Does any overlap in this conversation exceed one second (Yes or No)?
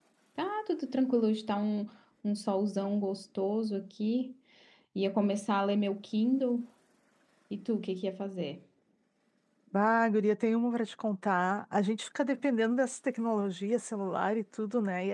No